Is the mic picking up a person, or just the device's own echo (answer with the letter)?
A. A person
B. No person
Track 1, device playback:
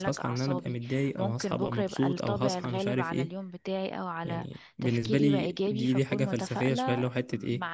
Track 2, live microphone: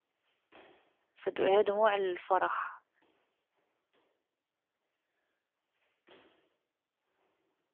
A